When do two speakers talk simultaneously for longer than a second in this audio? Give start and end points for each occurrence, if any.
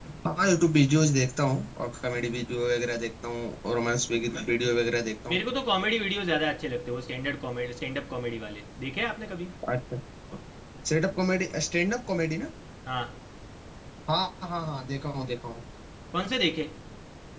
none

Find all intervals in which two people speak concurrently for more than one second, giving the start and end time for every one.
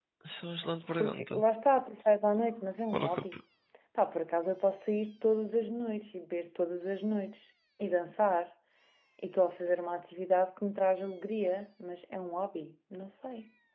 none

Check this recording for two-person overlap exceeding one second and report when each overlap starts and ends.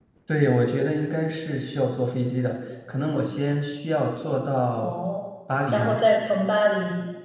none

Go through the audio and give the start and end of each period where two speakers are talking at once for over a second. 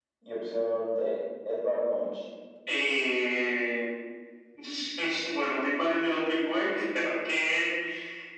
none

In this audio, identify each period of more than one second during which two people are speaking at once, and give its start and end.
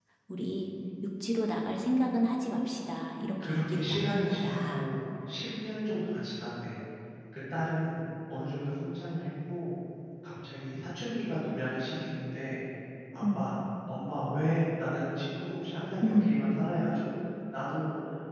3.4-4.9

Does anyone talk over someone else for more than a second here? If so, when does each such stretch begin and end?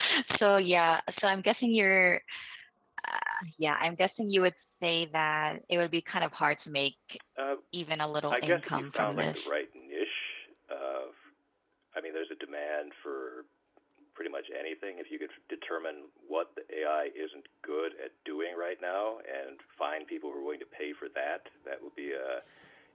8.3-9.5

